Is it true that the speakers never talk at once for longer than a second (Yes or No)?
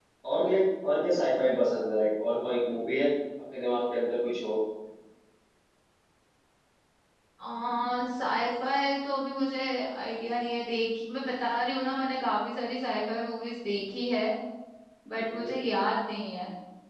Yes